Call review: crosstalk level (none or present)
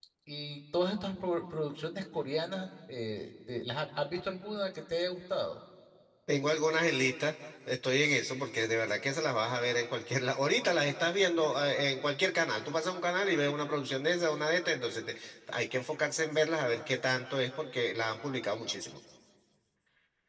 none